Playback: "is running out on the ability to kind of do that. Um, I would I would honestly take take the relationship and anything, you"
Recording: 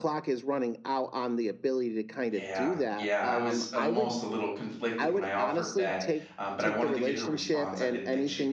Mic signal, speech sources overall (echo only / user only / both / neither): both